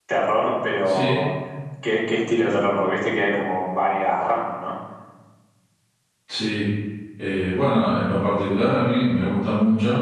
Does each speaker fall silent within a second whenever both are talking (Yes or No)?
Yes